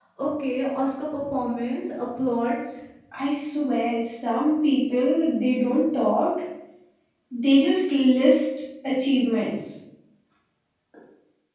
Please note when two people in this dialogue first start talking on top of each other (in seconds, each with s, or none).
none